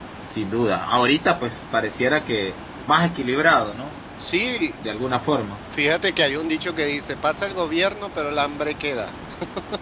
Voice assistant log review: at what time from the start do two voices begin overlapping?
none

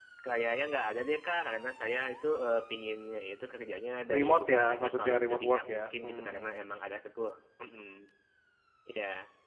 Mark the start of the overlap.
4.1 s

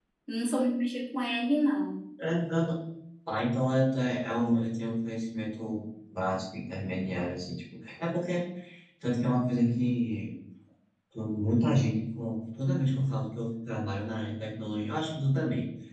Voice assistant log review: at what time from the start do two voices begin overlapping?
none

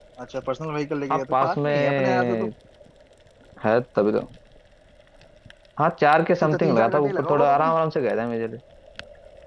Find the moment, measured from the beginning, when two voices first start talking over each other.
1.1 s

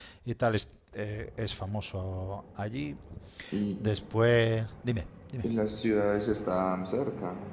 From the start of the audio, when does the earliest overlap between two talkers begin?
none

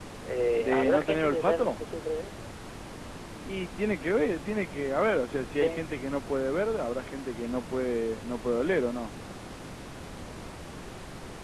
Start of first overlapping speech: 0.6 s

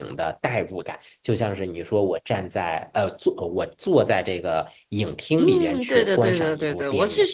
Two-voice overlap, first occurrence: 5.4 s

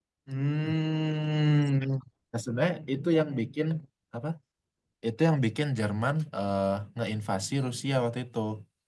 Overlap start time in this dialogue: none

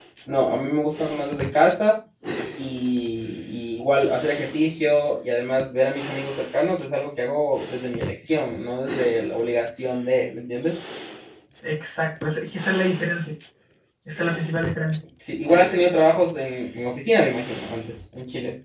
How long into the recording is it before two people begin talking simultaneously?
none

